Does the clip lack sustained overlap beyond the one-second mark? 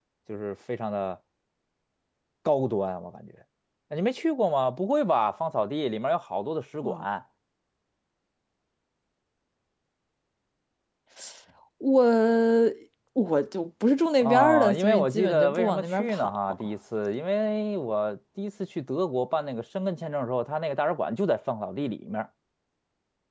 No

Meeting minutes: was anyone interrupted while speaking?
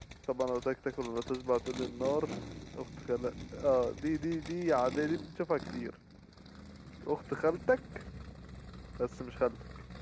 No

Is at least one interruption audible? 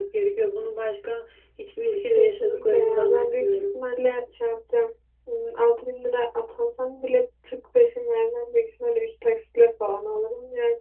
Yes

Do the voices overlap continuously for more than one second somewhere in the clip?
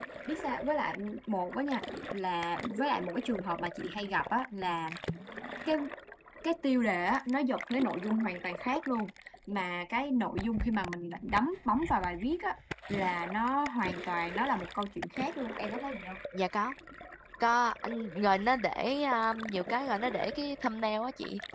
No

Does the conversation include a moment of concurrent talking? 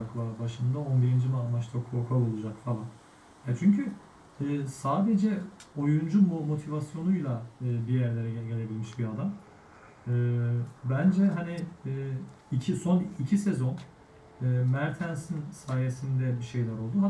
No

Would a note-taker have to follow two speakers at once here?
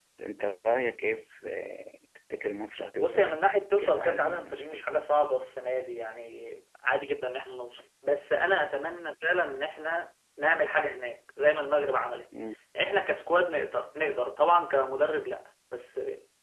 Yes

